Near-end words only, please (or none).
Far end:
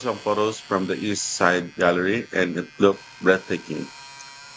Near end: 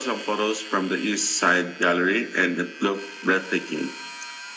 none